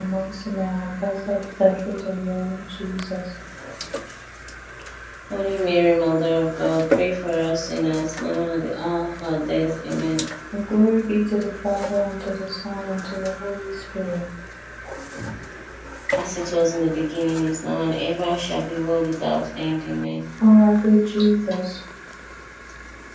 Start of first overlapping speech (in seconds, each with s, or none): none